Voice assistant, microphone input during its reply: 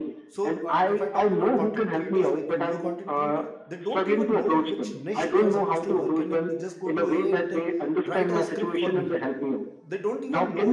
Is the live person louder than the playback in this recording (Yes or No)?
No